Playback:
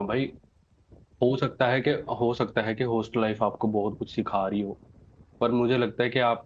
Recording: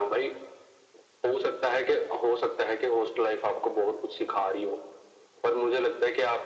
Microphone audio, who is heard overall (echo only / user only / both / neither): echo only